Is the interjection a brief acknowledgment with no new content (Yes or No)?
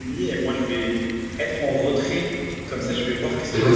No